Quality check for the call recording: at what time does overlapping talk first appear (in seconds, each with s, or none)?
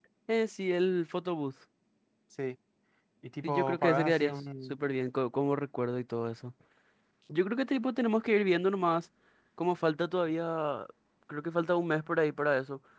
3.4 s